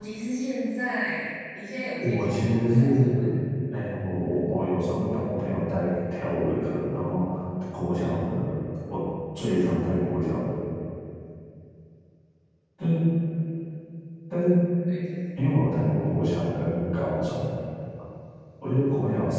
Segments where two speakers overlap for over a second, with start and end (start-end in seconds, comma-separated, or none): 2.0-3.3